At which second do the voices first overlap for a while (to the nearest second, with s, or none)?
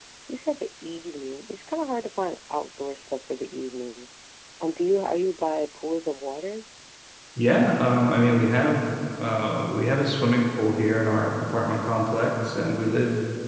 none